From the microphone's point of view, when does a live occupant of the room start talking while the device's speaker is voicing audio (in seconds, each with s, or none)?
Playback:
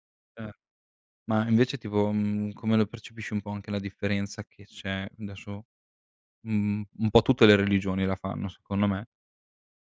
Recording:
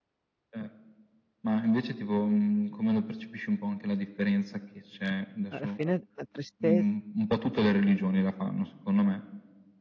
5.5 s